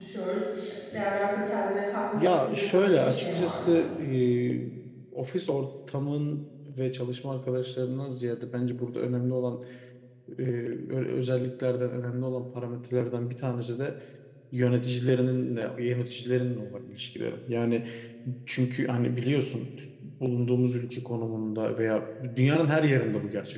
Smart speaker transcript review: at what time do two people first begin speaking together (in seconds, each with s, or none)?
2.1 s